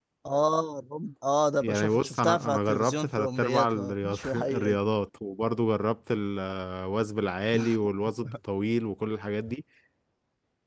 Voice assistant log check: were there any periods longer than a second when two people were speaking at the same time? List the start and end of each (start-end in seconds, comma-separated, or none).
1.6-4.8